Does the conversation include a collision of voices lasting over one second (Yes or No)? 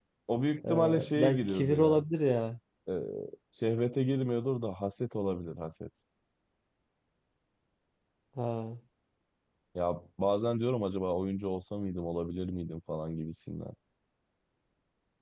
Yes